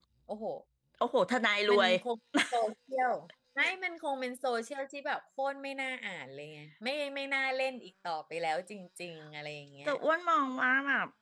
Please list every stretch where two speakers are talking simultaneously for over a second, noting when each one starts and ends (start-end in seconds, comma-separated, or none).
none